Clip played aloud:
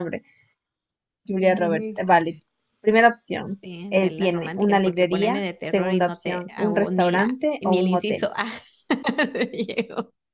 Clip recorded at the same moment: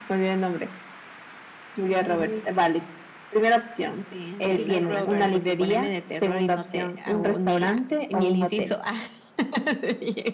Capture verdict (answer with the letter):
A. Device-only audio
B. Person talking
B